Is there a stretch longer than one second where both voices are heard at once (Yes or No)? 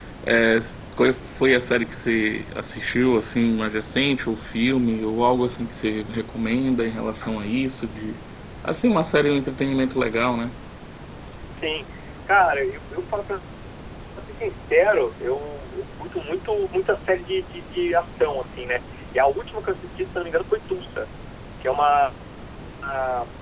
No